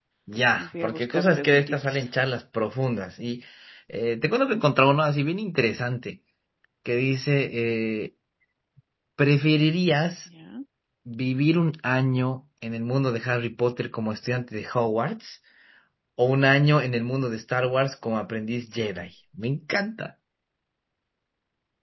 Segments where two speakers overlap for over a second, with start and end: 0.6-2.0

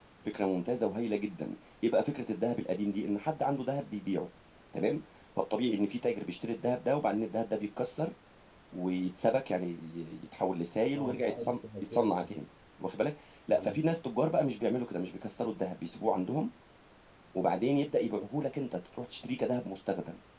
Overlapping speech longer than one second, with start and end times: 11.0-12.3

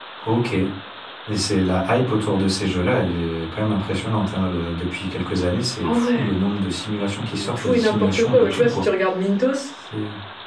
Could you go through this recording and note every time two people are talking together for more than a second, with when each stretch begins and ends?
7.4-8.8

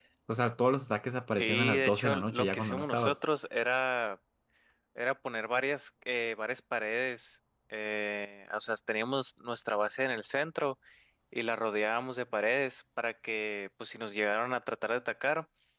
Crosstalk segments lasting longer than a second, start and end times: 1.4-3.2

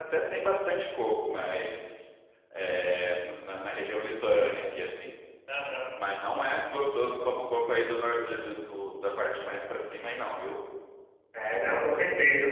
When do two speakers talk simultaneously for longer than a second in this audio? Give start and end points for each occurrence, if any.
none

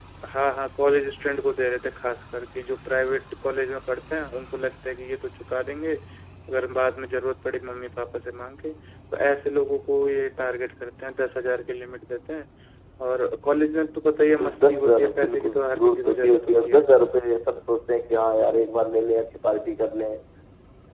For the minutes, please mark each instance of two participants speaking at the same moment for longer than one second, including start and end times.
14.2-16.7

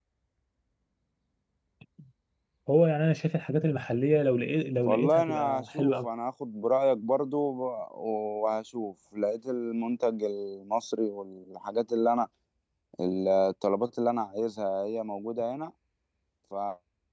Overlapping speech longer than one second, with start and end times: 4.8-6.1

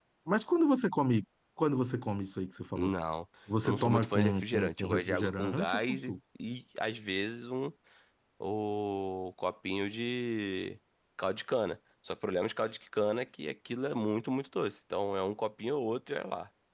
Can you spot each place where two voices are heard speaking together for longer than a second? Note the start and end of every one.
3.6-6.1

